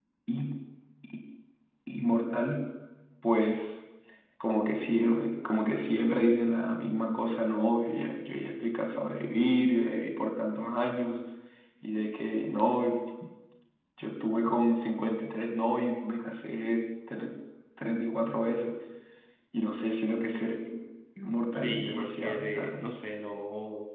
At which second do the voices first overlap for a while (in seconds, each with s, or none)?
21.5 s